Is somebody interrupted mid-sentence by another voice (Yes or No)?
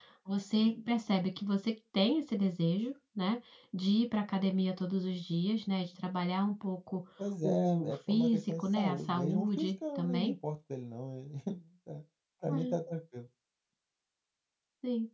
Yes